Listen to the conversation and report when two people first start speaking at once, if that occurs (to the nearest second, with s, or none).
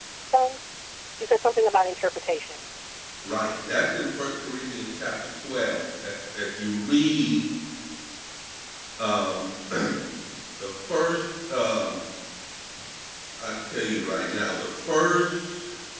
none